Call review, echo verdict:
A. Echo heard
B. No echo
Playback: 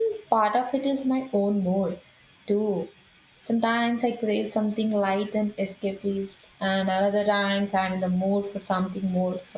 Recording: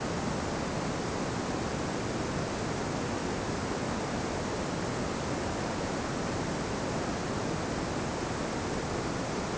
B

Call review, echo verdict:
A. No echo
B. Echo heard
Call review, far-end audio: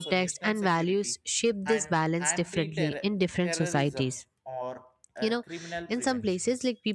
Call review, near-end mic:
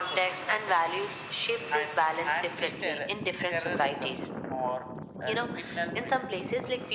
B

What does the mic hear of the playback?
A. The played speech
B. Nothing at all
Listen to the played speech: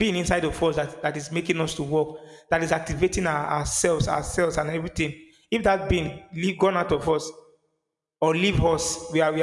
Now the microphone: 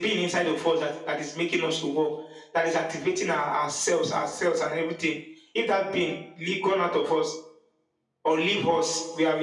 A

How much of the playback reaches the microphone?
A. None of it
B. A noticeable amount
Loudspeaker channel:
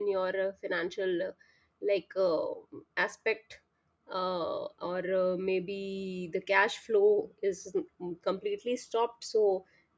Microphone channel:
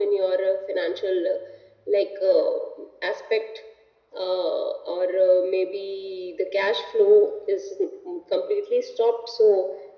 B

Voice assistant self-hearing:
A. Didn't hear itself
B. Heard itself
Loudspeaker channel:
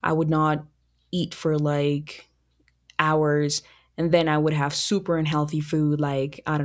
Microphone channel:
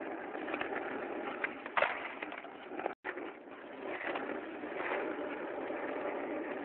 A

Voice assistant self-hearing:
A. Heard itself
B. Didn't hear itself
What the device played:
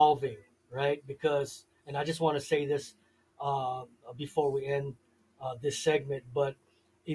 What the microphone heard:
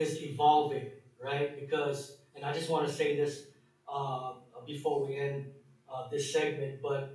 A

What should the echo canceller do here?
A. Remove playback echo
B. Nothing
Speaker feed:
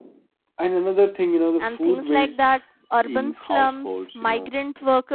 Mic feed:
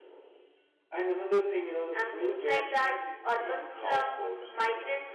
A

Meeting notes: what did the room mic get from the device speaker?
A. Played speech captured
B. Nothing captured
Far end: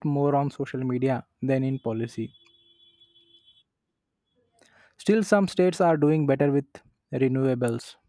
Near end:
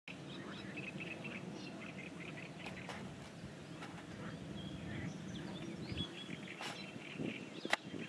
B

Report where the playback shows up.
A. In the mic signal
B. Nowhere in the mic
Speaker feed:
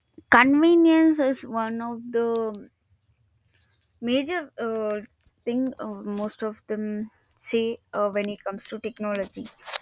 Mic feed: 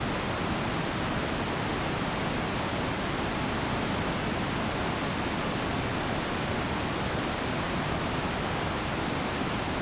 B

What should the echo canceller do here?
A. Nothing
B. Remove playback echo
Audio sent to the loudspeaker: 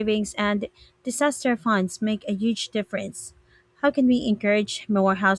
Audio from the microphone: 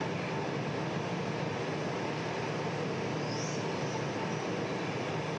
A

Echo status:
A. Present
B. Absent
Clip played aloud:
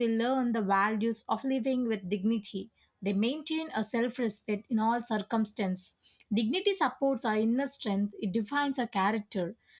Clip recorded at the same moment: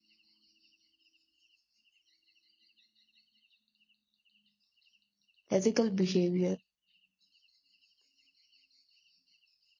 B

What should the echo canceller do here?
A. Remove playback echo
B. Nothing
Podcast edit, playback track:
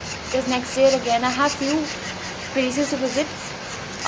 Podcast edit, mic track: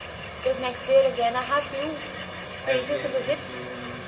A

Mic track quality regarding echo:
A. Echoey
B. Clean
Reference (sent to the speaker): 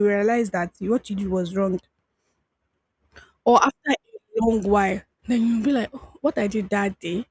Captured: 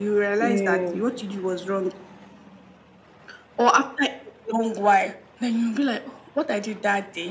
A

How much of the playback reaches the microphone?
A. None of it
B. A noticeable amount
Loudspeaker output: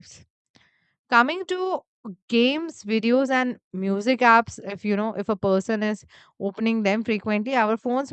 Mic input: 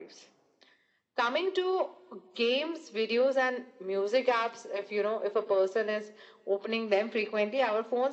B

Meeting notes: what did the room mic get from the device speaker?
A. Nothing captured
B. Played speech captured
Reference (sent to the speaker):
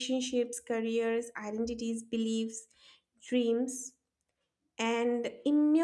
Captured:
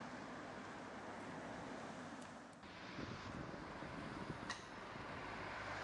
A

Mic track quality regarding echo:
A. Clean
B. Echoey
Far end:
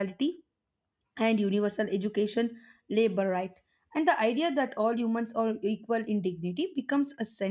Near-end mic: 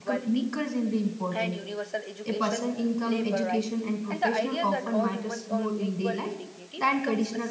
B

